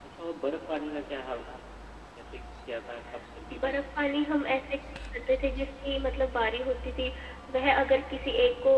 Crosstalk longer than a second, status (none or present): none